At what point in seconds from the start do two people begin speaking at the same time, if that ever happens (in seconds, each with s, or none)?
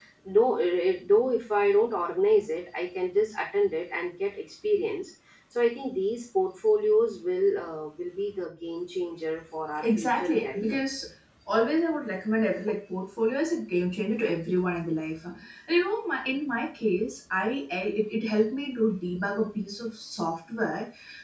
9.8 s